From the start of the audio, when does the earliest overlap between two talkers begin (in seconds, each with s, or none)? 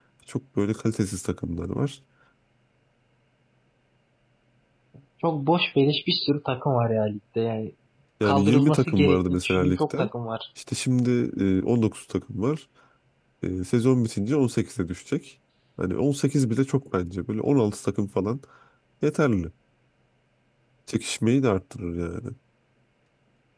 8.2 s